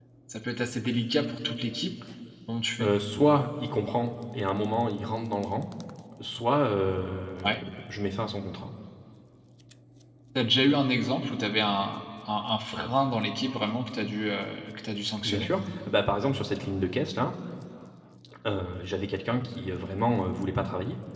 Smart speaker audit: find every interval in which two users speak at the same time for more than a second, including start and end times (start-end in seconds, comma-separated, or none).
none